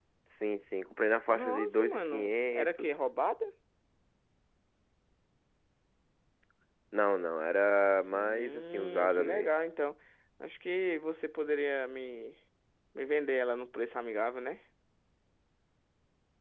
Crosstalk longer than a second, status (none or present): present